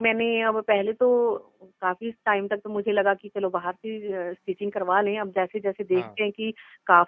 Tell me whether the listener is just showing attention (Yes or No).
Yes